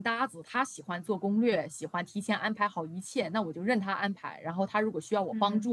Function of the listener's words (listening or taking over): listening